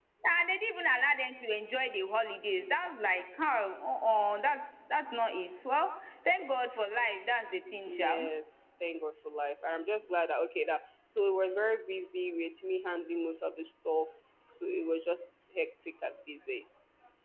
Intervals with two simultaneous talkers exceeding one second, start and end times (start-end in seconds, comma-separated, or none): none